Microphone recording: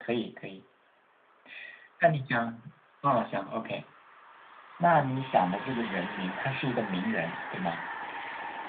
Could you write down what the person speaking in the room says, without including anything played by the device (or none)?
none